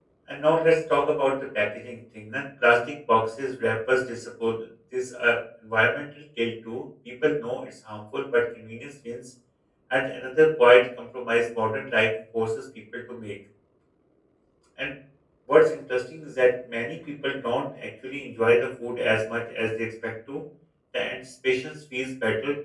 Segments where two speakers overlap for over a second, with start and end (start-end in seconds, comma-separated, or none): none